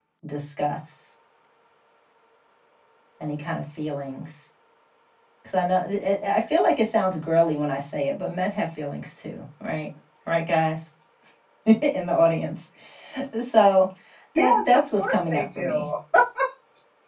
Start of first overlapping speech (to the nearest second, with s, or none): 14 s